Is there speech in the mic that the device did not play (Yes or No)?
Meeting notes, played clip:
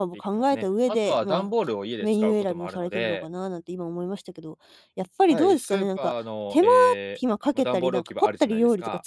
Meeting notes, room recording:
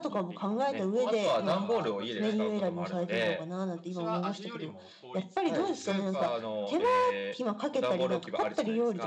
Yes